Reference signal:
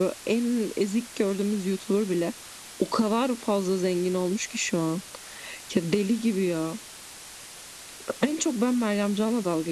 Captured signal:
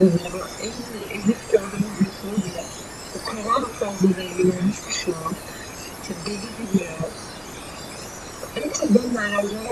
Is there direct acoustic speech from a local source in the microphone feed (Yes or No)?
No